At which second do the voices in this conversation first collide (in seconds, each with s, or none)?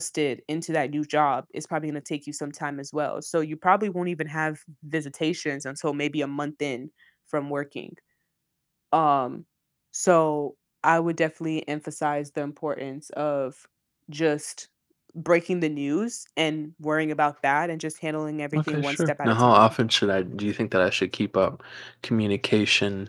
18.5 s